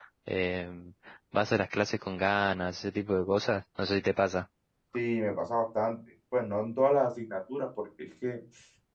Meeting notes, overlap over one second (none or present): none